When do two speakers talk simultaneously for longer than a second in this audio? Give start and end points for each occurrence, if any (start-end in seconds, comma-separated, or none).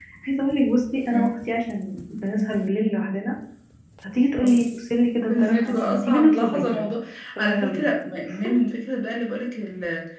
5.4-6.8